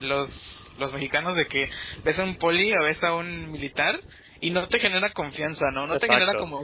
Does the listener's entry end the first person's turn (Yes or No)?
Yes